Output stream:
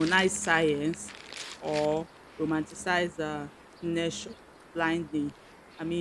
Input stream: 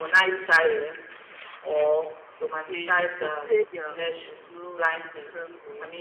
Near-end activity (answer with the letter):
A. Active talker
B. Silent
A